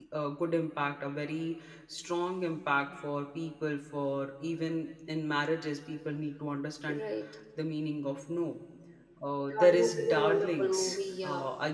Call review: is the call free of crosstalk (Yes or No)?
No